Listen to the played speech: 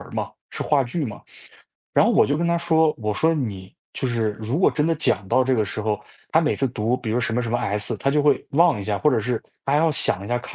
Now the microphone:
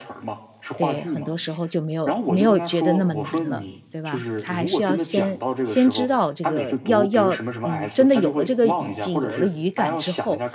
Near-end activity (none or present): present